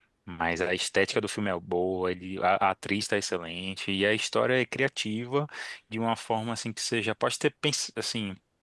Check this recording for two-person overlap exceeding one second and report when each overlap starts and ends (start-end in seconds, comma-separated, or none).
none